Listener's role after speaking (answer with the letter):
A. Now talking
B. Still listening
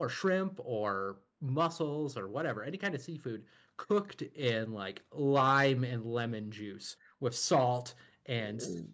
B